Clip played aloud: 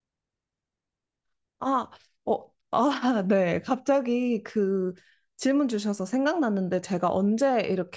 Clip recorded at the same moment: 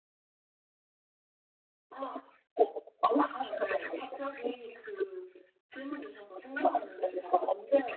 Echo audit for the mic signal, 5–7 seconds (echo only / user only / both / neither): echo only